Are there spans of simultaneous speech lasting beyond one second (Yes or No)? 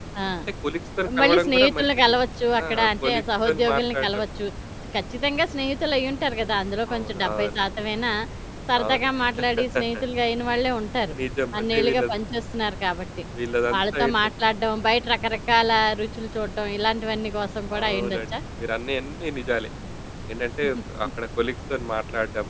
Yes